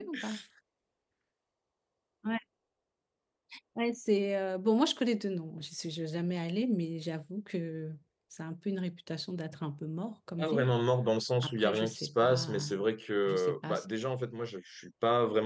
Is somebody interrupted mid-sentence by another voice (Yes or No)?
Yes